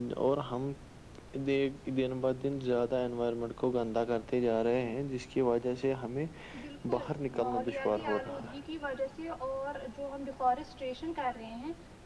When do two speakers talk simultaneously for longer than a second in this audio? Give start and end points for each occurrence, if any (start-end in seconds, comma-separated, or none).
6.9-8.6